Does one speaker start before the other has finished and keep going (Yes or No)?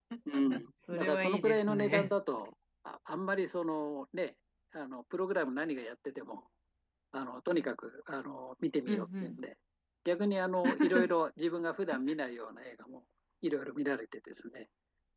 Yes